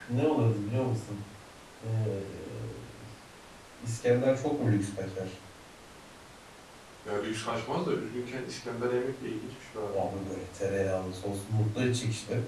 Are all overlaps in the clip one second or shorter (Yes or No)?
Yes